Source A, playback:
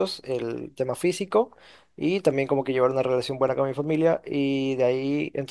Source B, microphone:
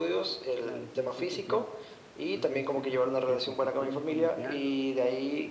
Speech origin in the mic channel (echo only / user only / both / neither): both